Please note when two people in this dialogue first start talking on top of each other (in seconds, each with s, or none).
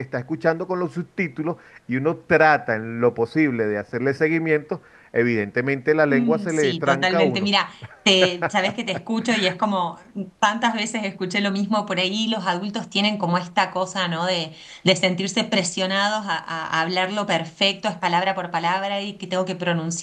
6.1 s